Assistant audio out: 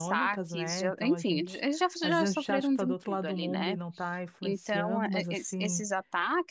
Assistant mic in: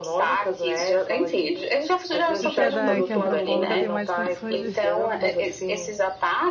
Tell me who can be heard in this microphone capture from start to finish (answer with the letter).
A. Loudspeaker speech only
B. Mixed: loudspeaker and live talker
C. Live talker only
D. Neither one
B